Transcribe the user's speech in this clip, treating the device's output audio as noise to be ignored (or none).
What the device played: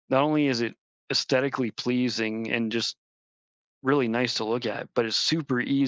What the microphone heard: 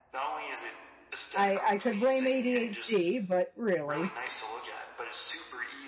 I I could blame ADHD, but really,